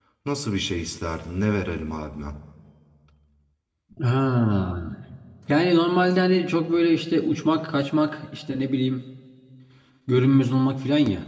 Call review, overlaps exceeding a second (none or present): none